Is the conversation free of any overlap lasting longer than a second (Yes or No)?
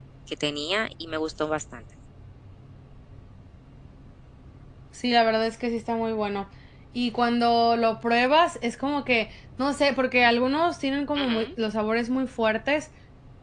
Yes